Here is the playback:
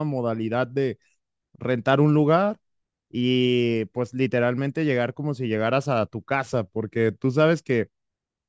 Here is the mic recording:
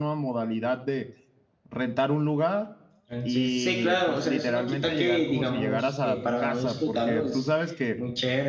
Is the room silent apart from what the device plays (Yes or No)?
No